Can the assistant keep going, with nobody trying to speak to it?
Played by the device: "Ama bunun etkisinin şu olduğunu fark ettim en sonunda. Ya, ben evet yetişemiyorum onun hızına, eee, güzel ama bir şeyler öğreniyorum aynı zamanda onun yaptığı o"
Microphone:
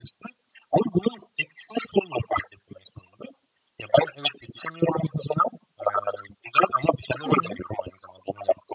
No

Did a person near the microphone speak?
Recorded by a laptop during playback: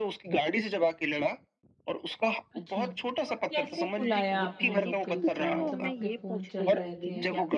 Yes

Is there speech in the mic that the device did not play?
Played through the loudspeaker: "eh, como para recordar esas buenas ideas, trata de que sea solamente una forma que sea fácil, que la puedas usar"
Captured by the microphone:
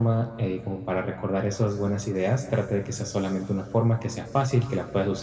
No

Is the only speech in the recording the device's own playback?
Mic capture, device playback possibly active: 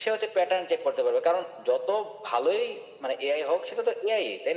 Yes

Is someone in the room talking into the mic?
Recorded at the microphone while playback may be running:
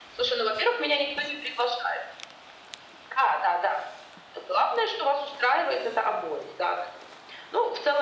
No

